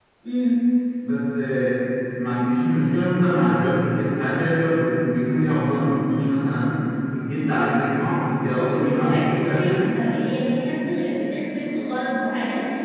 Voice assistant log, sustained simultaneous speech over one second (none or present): present